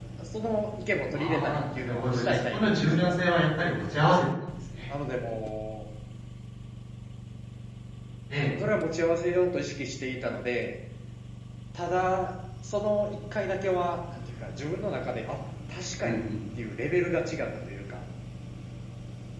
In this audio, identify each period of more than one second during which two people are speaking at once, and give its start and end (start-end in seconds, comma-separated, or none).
1.1-3.1